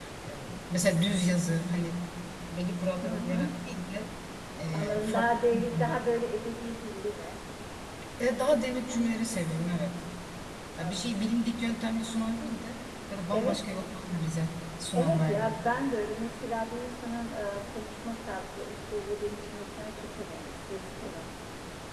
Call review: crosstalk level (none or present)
present